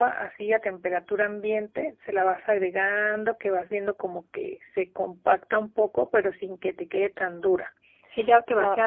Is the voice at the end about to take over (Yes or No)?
Yes